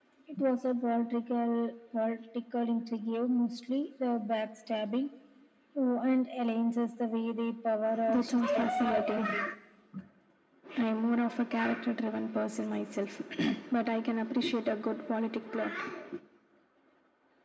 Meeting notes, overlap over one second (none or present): present